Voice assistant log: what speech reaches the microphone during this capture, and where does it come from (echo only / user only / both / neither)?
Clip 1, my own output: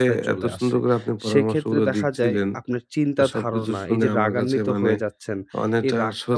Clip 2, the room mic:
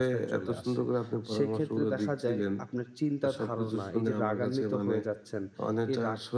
echo only